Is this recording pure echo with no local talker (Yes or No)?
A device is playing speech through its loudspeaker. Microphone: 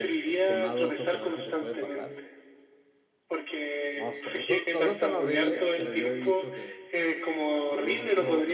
No